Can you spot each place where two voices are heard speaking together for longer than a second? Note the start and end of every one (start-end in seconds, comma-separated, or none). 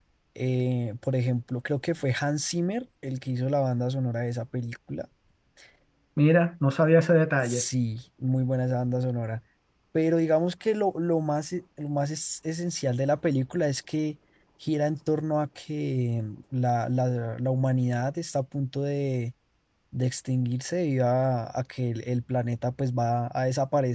none